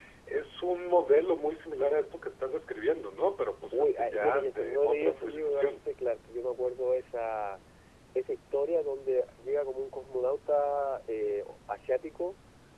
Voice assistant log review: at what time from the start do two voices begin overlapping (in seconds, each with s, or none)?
3.7 s